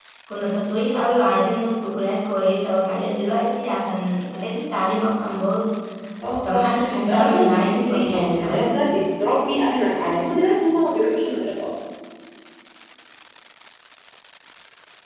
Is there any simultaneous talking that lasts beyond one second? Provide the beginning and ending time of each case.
6.4-8.8

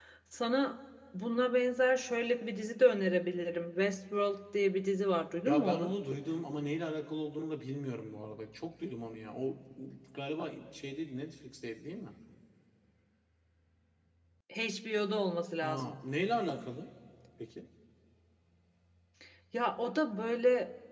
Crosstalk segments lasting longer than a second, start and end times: none

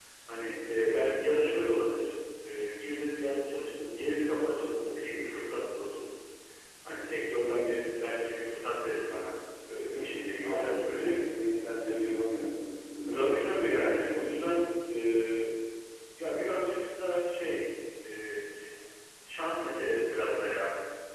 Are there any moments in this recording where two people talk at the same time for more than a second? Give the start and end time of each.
9.9-11.1

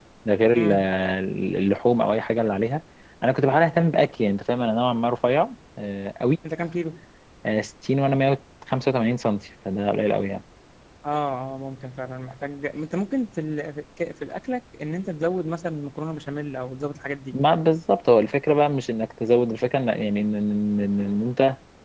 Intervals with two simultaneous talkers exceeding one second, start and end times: none

